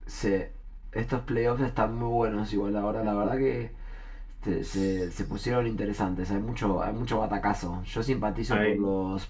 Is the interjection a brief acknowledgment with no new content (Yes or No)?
Yes